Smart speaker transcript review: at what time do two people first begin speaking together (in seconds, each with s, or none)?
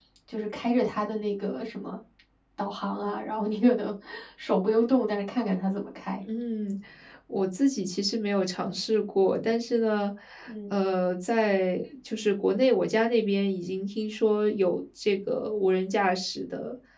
none